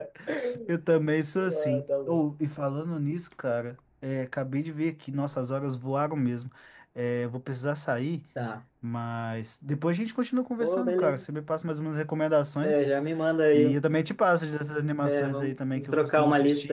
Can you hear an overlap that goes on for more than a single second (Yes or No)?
Yes